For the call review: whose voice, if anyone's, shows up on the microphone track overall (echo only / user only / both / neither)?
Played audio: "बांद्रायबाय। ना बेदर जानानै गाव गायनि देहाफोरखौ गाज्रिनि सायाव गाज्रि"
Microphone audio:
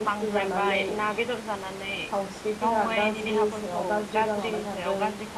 both